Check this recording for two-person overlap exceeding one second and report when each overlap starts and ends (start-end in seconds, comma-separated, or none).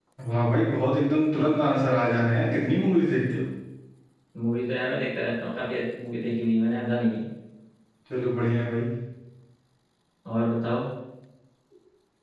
none